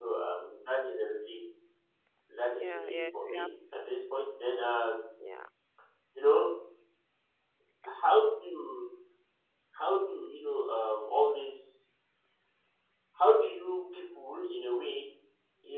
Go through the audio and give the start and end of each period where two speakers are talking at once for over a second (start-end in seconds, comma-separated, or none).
2.5-3.8